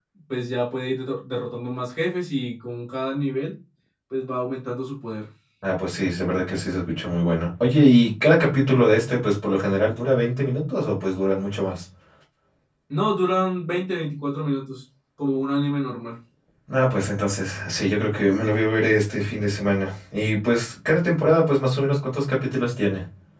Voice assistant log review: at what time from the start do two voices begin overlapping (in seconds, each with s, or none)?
none